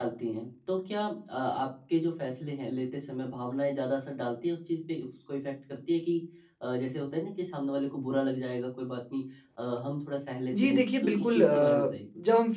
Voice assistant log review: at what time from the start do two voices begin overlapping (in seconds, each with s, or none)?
10.5 s